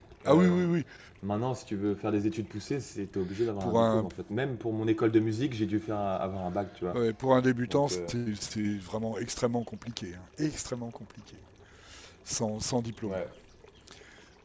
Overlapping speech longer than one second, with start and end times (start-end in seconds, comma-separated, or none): none